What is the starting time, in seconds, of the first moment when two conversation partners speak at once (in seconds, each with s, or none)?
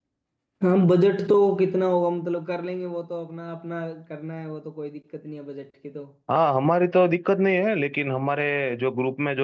none